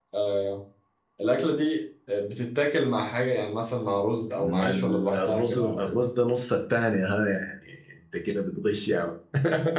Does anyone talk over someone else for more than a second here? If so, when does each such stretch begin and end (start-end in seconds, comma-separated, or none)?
4.4-6.0